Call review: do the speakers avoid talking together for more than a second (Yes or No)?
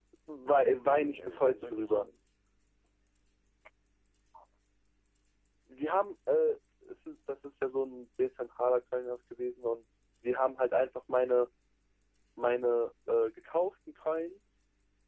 No